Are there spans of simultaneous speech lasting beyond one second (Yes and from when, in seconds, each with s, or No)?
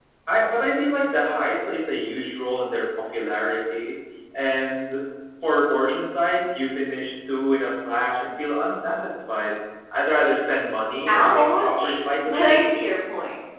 Yes, from 11.1 s